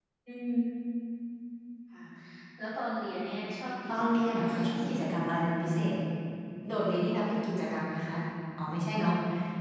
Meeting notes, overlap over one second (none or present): present